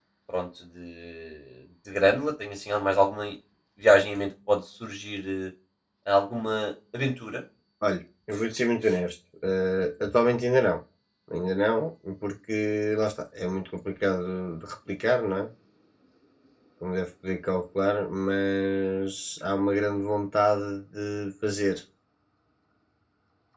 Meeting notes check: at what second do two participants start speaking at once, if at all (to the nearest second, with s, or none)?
none